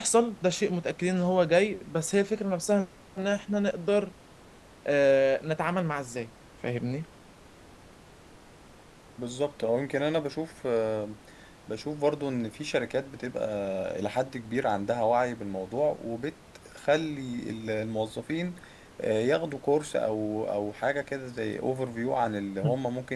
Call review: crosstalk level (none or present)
none